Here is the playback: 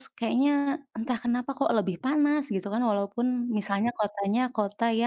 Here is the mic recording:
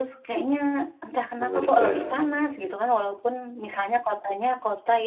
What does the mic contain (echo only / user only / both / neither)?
both